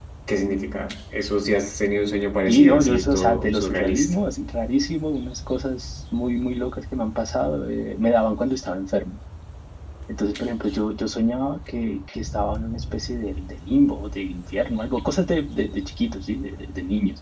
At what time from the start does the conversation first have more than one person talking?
2.5 s

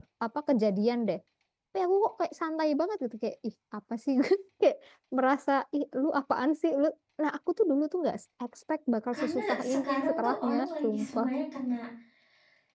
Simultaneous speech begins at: 9.1 s

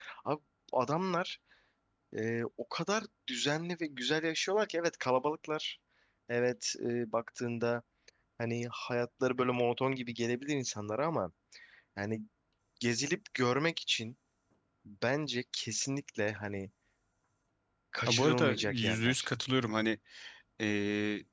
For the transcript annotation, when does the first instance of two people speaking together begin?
18.1 s

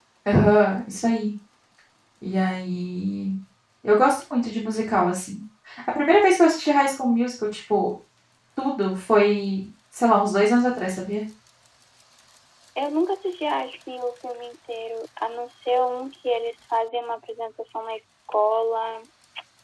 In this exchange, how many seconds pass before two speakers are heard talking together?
none

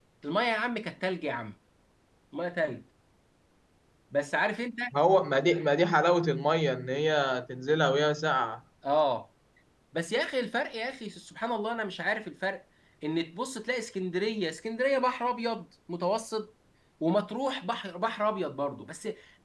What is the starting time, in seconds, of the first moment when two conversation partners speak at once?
none

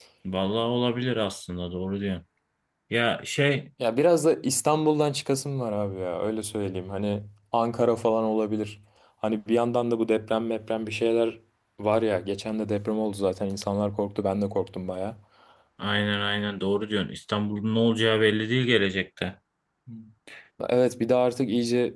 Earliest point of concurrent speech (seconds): none

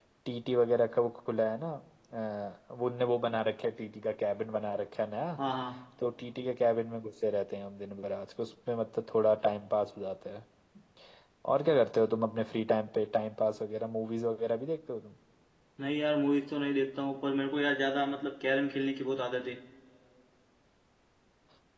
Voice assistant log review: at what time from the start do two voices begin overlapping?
none

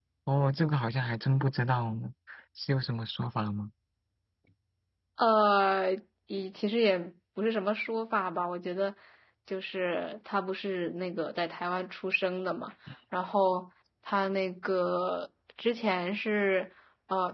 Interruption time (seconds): none

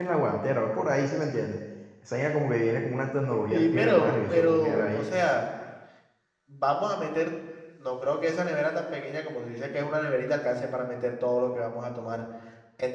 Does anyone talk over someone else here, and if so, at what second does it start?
3.5 s

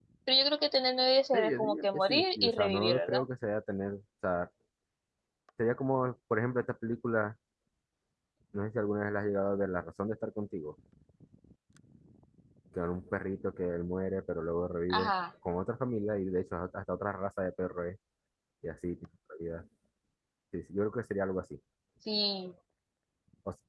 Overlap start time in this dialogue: 1.3 s

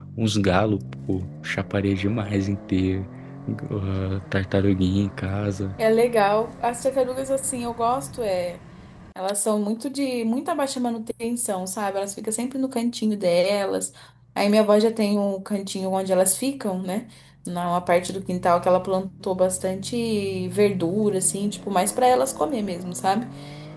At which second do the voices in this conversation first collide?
none

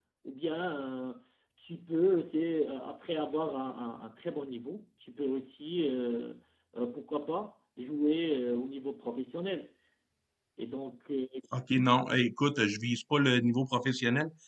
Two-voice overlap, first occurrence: none

